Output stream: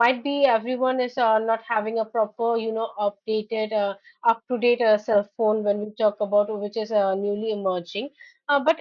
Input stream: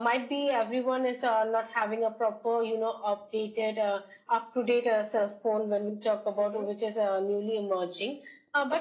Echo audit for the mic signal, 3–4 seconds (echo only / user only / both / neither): echo only